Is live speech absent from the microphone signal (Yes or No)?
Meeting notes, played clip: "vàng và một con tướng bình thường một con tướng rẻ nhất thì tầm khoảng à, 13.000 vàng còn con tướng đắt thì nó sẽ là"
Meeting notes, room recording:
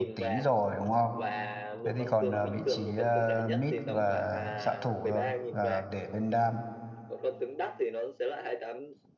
No